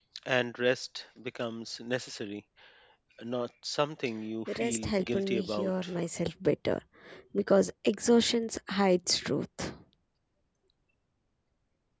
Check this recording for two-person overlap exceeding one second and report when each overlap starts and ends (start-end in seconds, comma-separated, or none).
4.6-5.9